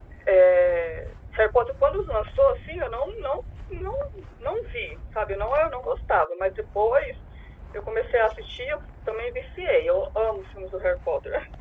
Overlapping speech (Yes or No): No